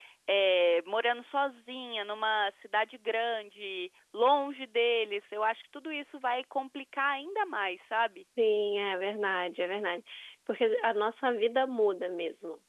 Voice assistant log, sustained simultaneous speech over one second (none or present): none